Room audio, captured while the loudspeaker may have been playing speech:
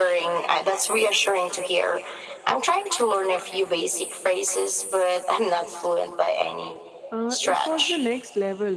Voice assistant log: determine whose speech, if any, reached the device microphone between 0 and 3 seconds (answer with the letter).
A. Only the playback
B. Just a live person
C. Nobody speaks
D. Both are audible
A